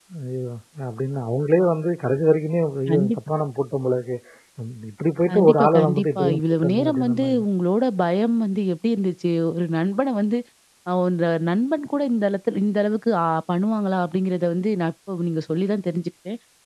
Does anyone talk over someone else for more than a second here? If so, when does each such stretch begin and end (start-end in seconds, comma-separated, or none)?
5.3-7.4